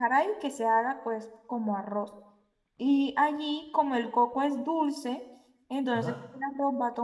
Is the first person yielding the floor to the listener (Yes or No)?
No